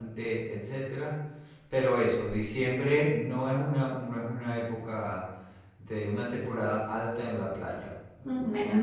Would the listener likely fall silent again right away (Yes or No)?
No